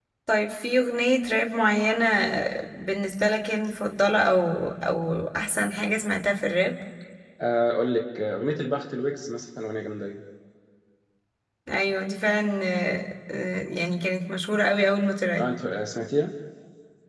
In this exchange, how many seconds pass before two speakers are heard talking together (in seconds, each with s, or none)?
none